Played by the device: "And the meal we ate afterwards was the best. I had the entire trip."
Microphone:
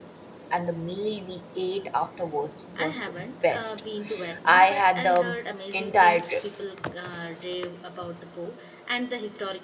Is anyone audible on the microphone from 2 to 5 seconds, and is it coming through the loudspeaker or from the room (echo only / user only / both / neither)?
both